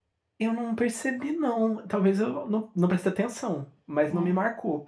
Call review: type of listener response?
listening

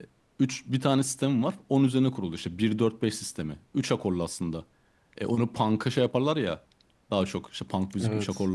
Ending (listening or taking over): listening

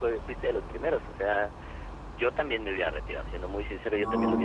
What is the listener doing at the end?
listening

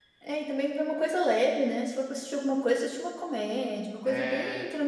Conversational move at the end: listening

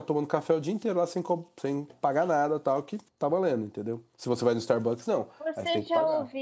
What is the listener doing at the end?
taking over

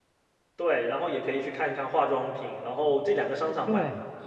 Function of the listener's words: listening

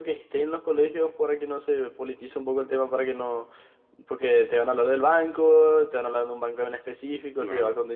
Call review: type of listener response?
listening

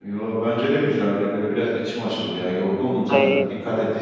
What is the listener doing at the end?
listening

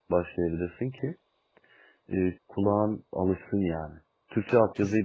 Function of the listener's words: listening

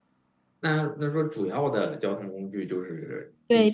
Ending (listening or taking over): taking over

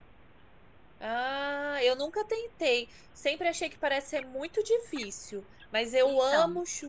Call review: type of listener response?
listening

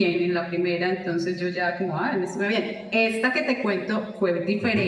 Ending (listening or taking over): listening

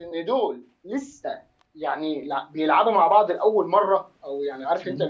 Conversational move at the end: listening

